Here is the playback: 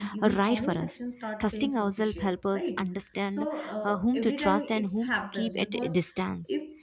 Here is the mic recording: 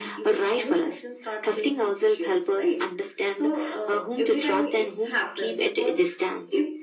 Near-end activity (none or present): none